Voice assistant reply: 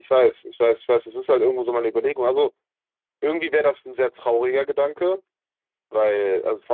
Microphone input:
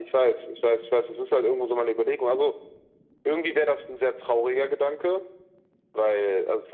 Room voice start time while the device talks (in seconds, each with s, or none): none